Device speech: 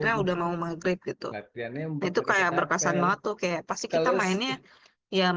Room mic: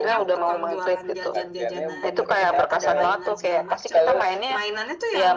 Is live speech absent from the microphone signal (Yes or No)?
No